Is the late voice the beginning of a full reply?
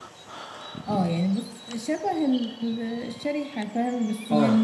Yes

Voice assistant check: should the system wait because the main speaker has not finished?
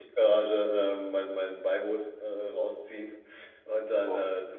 Yes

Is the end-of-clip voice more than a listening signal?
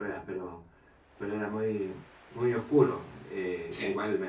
No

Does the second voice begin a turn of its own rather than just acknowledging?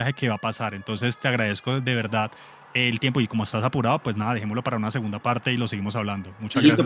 Yes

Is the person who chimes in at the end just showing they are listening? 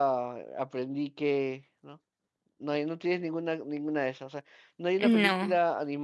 Yes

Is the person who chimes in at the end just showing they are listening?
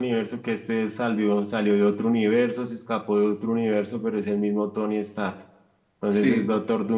Yes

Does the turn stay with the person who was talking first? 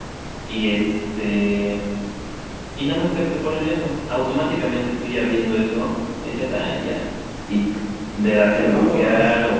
Yes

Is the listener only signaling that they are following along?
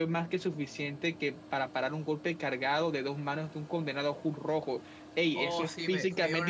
No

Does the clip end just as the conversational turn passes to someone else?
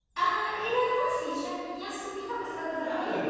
No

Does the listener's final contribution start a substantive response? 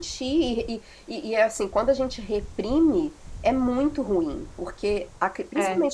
No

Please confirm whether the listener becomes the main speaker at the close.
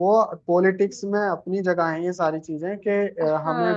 Yes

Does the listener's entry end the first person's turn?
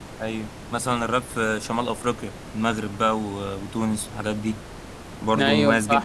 Yes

